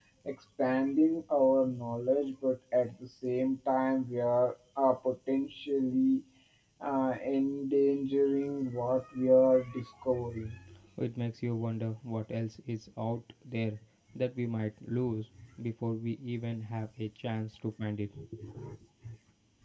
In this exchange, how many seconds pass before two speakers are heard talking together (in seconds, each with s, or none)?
none